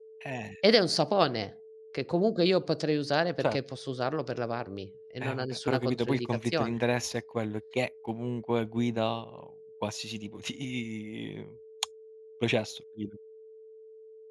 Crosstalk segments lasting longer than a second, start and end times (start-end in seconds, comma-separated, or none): 5.2-6.8